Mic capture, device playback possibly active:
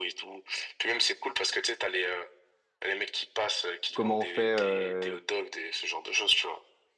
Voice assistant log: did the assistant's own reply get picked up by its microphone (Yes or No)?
Yes